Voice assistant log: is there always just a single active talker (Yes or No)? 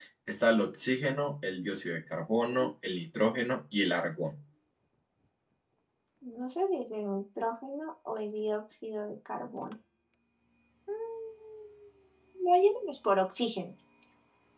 Yes